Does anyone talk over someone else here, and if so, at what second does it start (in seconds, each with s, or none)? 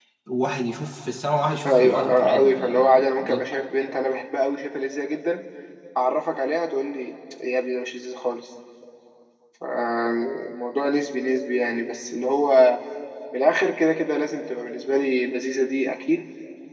1.6 s